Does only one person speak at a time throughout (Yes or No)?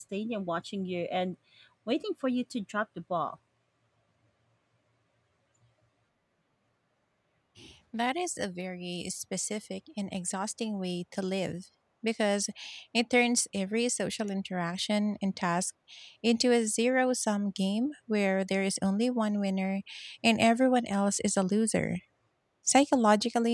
Yes